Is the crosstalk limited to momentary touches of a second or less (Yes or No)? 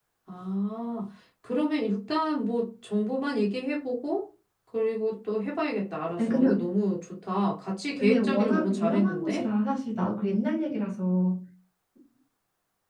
No